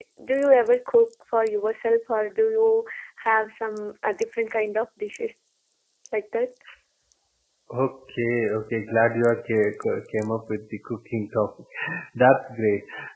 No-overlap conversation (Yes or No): Yes